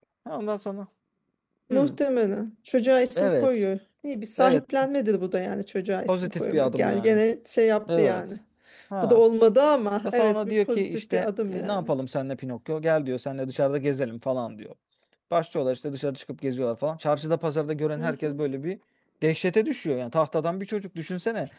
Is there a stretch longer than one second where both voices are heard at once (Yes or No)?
Yes